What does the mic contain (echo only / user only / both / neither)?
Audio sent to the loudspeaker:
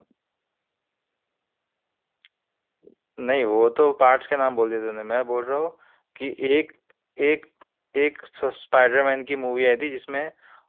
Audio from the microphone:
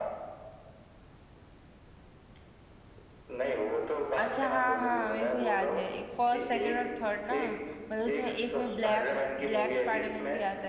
both